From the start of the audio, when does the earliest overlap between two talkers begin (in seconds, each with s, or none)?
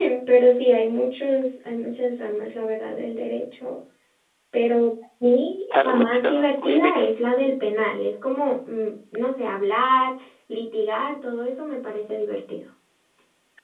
5.7 s